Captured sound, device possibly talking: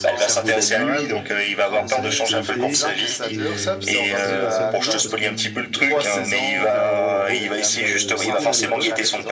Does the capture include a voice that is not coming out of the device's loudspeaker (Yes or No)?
Yes